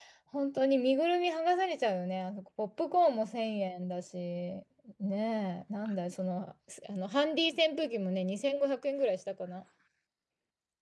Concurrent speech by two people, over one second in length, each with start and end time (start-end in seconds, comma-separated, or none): none